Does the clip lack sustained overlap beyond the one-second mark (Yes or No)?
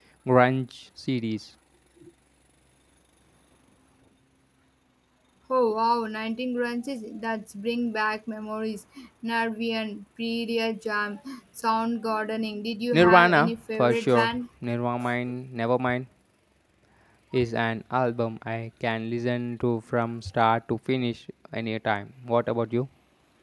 No